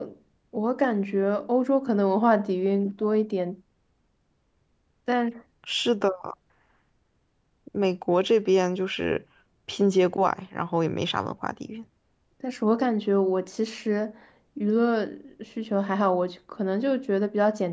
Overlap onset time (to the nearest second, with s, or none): none